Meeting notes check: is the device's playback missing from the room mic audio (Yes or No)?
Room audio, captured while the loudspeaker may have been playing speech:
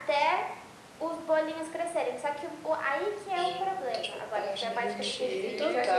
No